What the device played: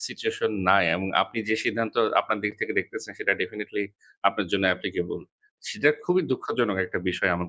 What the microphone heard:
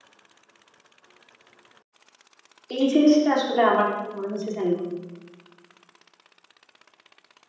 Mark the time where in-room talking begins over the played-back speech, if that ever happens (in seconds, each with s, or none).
2.8 s